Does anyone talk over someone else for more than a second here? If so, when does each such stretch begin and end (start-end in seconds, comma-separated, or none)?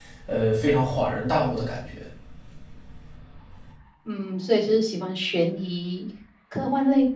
none